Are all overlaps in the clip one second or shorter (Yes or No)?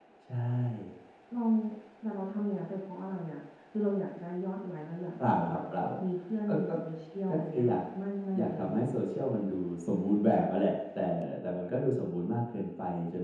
Yes